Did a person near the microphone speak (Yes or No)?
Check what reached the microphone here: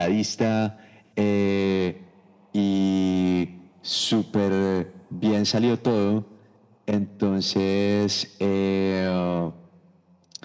No